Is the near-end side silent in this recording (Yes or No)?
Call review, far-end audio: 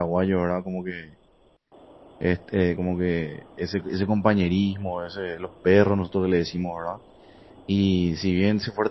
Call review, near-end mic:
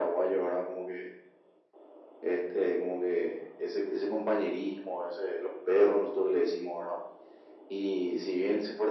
Yes